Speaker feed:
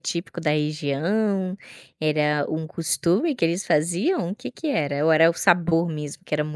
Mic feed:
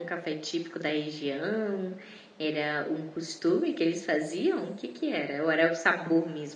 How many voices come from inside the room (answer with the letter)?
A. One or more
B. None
B